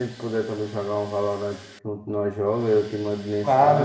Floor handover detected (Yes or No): No